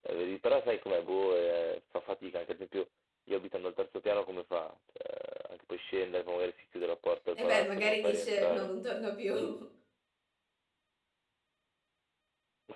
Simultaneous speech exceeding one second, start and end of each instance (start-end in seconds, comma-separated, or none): 7.4-8.7